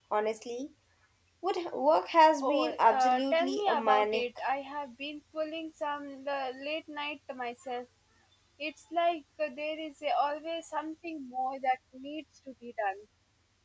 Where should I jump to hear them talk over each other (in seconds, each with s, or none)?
2.4 s